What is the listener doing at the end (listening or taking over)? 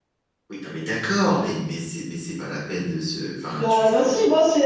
taking over